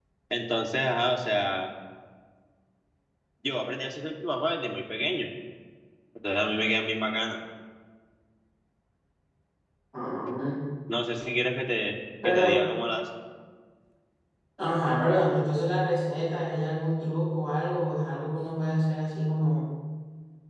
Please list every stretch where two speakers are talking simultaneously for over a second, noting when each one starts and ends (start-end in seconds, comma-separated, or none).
none